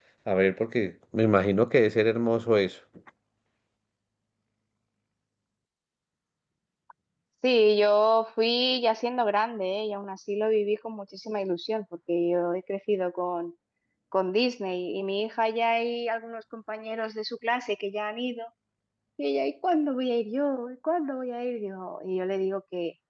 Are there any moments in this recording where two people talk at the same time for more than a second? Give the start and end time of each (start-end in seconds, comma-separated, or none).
none